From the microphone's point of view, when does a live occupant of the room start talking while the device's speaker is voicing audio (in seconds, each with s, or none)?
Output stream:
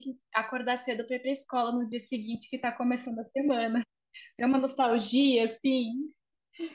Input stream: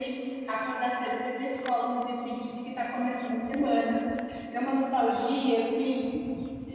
none